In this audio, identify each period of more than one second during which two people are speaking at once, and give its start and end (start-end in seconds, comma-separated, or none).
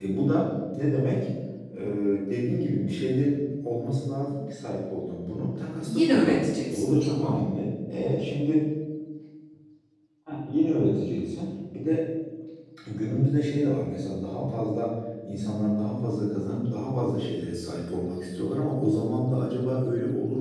5.9-7.4